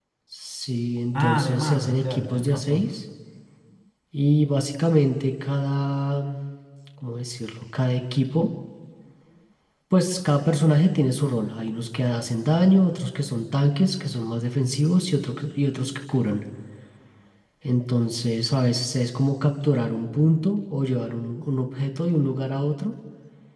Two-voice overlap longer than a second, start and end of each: 1.2-2.9

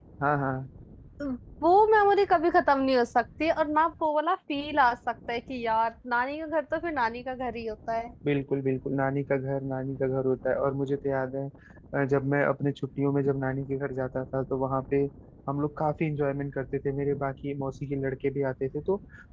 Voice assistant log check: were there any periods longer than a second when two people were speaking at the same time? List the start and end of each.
none

